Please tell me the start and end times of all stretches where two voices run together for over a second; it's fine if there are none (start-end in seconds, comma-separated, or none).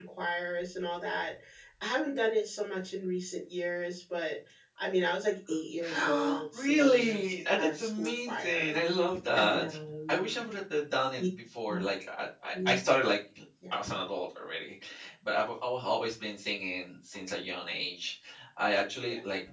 5.9-8.8